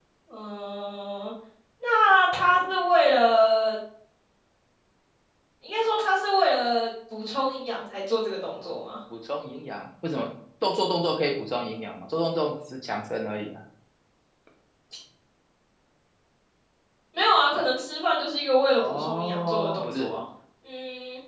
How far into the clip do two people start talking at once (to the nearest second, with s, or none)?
19 s